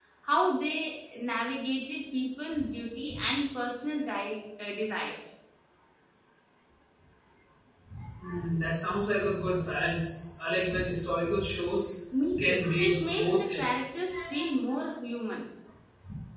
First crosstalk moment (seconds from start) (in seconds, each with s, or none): 12.4 s